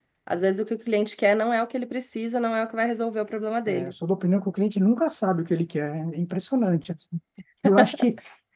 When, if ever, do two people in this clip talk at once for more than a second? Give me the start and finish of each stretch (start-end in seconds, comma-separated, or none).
none